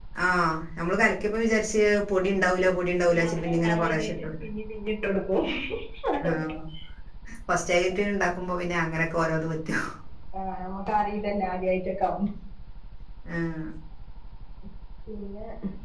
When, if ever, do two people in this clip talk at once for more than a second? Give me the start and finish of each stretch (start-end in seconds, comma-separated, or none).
3.1-4.3